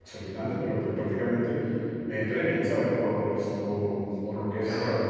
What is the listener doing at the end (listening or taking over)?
listening